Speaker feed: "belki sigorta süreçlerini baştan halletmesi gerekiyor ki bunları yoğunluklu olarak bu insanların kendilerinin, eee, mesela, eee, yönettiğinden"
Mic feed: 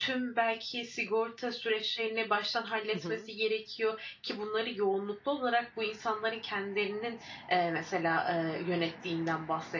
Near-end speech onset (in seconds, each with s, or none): 2.9 s